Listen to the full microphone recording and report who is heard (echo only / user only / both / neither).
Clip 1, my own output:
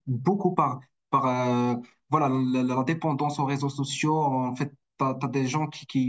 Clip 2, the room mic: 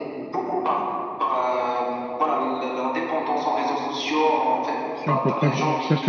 both